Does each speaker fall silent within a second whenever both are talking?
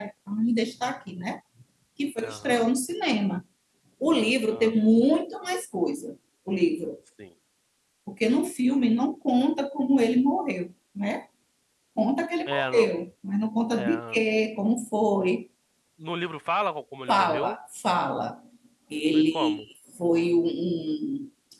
Yes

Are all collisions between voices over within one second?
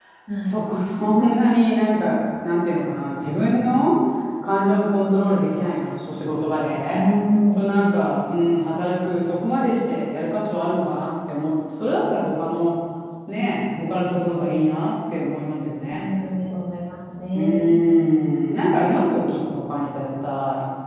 Yes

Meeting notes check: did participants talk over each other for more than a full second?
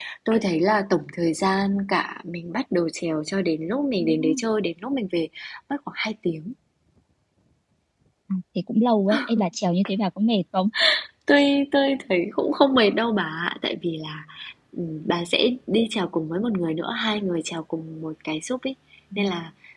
No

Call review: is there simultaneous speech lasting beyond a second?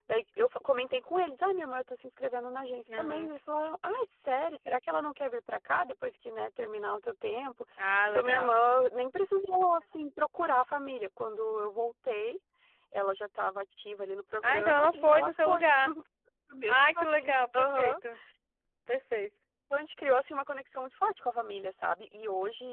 Yes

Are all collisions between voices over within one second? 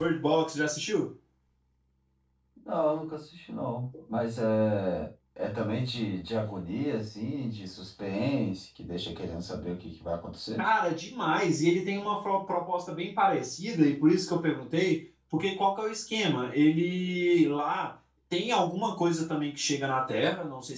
Yes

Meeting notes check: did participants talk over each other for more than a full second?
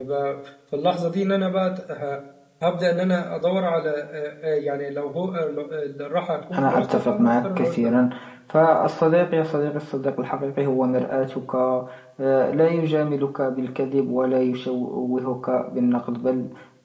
Yes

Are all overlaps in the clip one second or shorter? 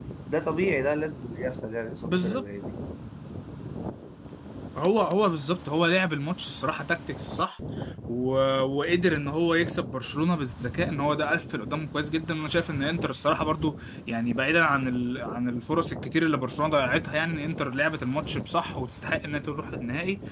Yes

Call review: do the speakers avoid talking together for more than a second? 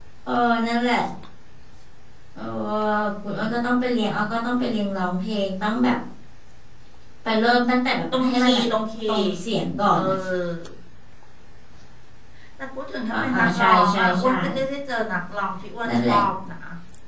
No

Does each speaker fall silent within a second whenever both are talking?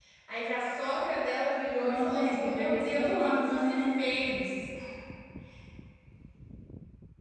No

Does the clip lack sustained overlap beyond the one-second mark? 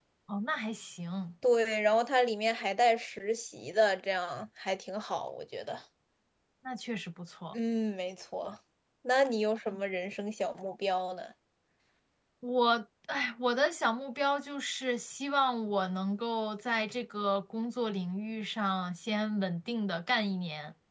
Yes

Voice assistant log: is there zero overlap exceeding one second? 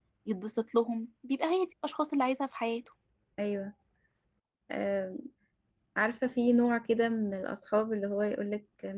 Yes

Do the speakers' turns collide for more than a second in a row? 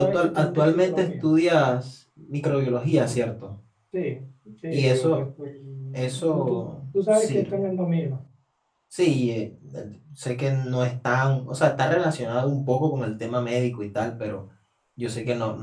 Yes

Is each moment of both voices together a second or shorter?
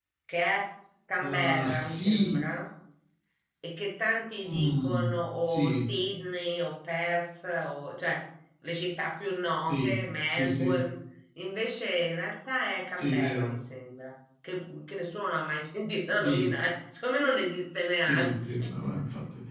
No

